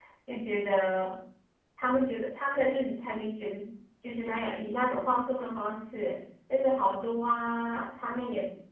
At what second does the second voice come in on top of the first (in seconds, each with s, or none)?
none